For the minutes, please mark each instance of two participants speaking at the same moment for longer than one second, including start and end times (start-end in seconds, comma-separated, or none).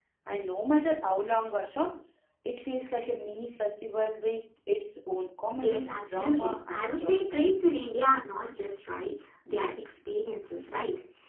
5.6-7.2